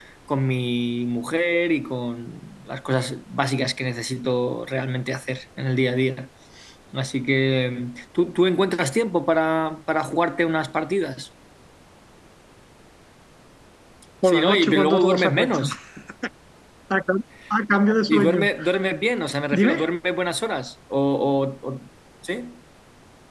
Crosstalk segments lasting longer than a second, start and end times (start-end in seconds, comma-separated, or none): 14.2-15.7